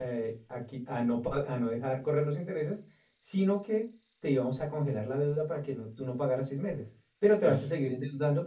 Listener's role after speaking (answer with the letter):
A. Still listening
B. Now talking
A